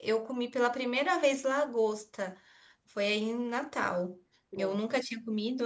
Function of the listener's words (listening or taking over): listening